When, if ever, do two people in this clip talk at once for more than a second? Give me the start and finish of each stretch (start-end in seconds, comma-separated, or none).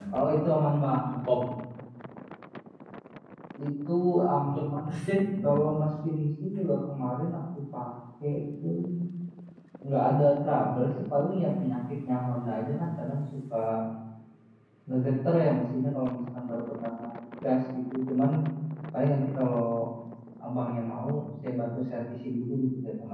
4.4-5.7